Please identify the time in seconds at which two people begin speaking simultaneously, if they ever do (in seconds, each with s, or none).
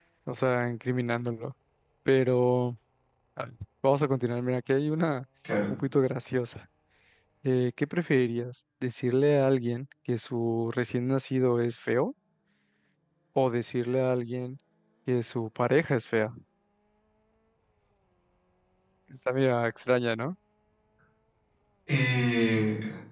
none